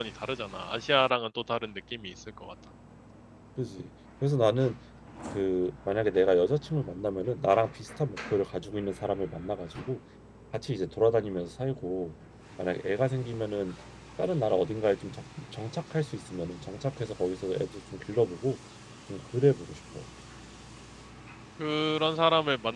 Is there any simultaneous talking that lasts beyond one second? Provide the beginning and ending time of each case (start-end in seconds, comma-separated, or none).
none